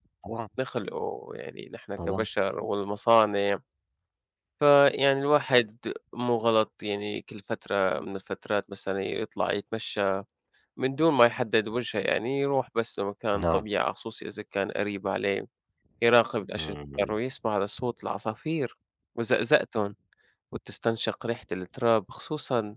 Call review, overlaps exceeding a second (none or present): none